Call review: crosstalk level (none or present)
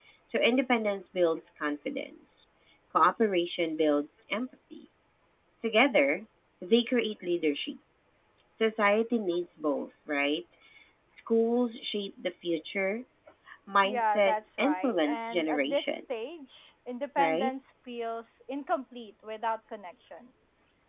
present